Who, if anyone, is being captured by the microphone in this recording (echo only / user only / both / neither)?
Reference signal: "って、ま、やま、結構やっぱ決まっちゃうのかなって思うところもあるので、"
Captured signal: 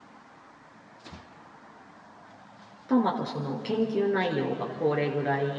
user only